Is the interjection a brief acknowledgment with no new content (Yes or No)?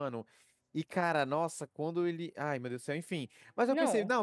Yes